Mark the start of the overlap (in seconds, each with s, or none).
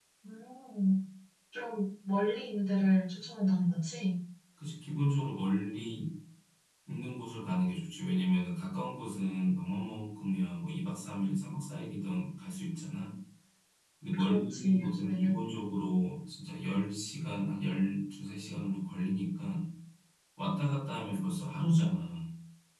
14.2 s